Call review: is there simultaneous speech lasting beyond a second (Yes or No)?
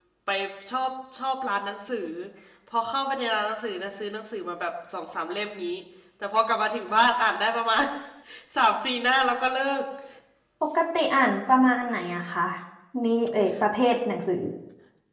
No